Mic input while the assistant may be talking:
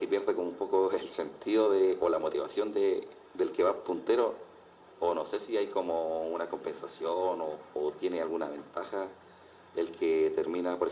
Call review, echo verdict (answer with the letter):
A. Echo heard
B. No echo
A